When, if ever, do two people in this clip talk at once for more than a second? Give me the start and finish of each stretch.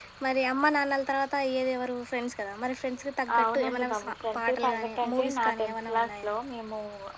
3.3-6.3

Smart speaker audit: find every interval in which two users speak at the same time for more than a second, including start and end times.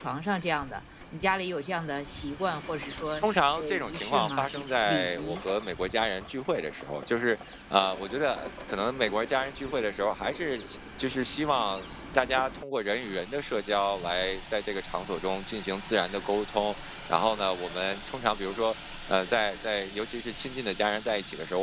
3.2-5.4

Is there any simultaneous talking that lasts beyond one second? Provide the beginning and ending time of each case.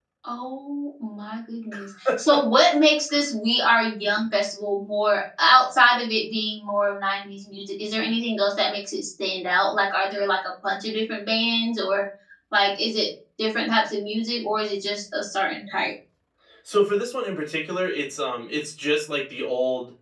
none

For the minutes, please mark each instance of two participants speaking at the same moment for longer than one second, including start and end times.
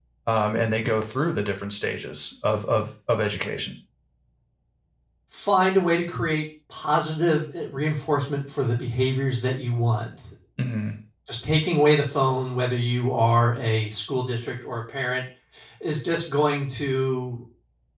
none

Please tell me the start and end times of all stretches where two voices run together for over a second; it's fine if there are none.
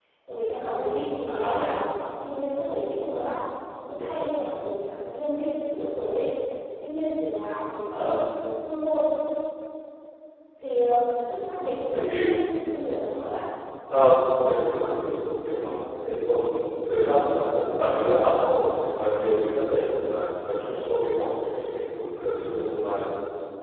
14.5-15.8

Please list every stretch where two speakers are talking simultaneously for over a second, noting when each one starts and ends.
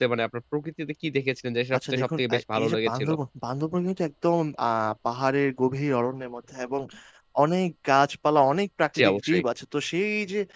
1.8-3.1

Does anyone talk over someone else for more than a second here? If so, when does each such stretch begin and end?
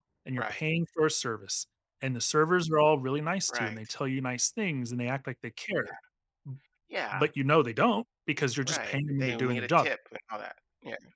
8.6-9.9

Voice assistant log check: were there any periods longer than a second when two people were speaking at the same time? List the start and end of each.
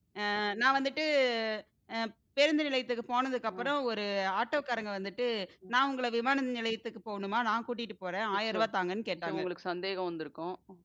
none

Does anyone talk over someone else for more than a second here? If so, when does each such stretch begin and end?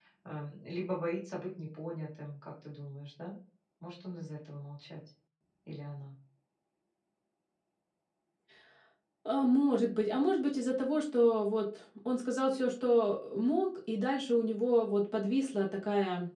none

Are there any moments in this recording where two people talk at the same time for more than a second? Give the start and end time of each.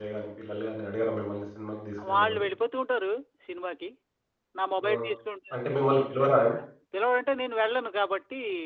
none

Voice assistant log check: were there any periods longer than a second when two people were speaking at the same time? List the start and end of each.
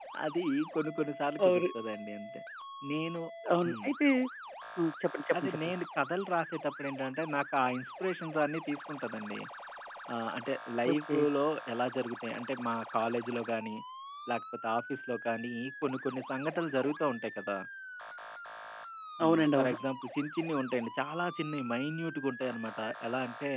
none

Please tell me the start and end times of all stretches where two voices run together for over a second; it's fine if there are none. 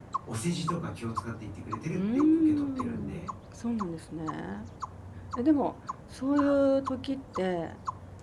1.9-3.3

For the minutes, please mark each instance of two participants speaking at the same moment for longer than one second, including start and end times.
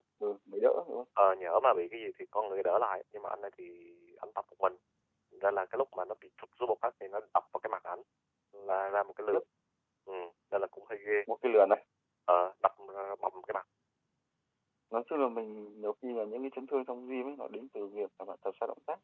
none

